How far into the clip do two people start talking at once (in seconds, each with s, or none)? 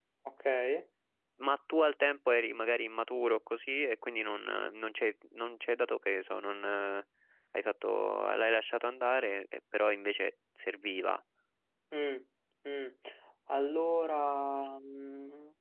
none